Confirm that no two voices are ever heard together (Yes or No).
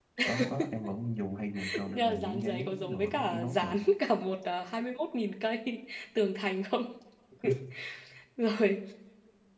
No